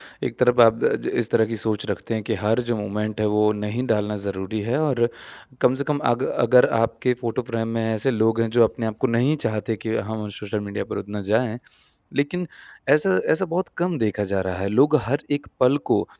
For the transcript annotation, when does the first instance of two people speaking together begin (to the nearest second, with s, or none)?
none